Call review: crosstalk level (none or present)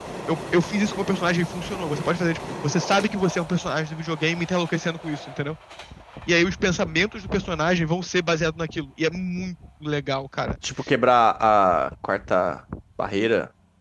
none